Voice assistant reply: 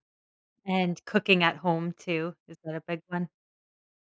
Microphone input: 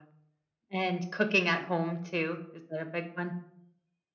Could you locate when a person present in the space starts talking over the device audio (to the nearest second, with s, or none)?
none